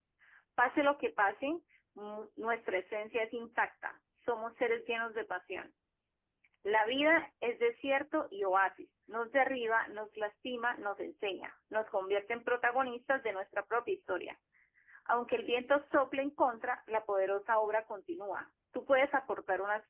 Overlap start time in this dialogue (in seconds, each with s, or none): none